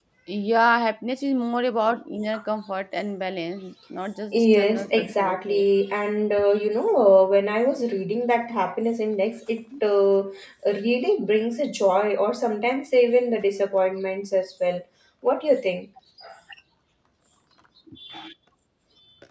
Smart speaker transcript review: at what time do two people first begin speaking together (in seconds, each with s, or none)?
4.3 s